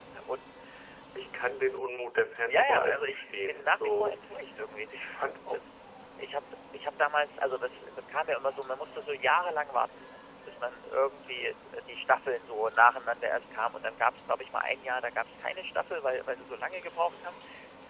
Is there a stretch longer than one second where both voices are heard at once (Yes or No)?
Yes